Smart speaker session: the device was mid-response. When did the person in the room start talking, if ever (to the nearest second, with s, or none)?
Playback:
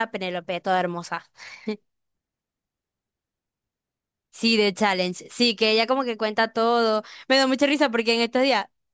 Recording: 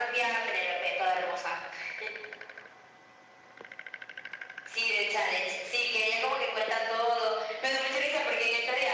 none